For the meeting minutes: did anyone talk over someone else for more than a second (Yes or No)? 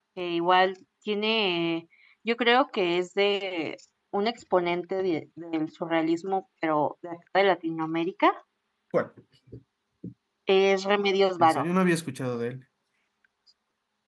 No